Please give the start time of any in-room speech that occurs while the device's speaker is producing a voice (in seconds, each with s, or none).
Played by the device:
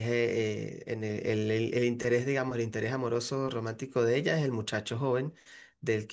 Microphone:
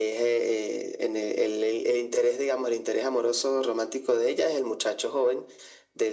none